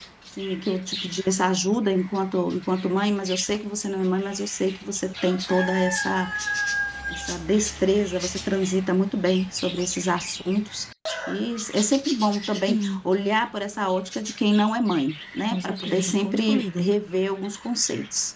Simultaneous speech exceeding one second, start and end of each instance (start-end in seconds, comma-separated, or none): 15.5-16.9